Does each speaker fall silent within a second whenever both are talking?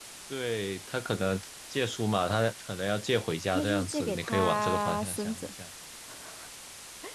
No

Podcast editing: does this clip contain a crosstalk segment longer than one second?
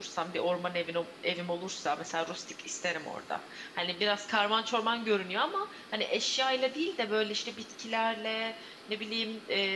No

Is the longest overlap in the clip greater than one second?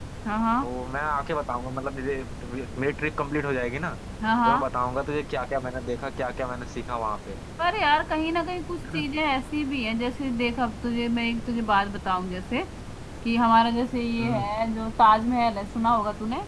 No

